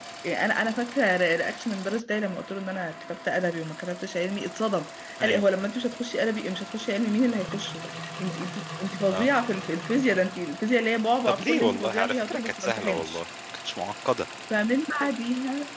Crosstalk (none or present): present